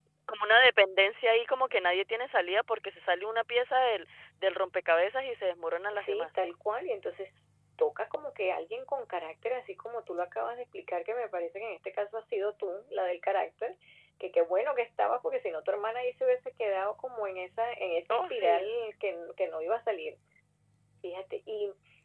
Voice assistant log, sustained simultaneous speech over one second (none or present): none